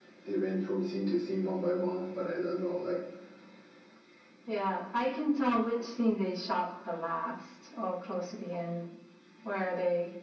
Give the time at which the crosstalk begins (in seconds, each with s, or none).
none